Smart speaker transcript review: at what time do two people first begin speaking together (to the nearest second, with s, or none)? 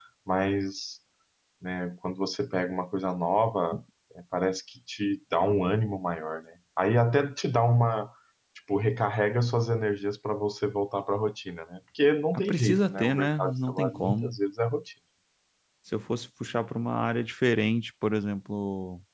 12 s